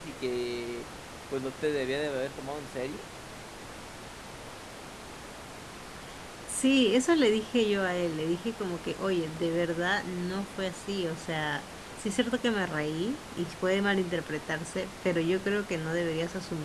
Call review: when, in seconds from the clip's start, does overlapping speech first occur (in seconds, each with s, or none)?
none